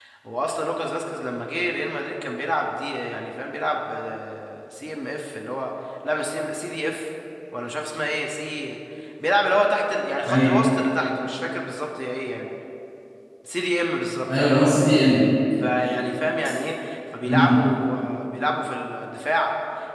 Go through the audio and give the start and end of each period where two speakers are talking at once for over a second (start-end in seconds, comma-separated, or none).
none